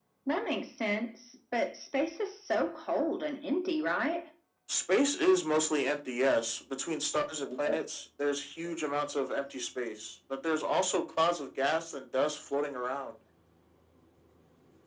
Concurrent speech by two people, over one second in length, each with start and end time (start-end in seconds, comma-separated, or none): none